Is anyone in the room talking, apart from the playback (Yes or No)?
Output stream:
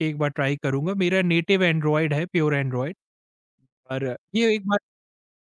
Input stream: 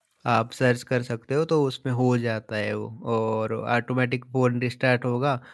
Yes